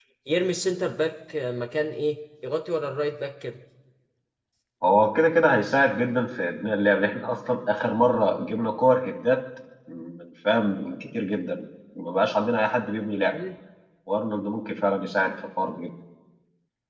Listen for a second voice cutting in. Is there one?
No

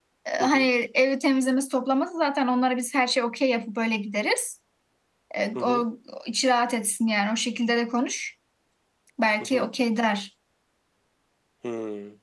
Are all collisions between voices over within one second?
Yes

